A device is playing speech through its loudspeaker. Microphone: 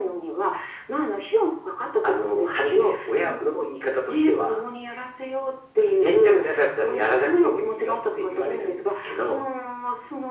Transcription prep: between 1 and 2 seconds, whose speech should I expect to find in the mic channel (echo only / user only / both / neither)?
echo only